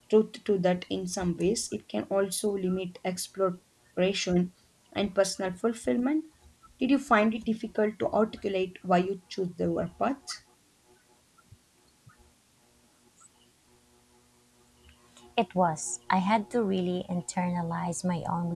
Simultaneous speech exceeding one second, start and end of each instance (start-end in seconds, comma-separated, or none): none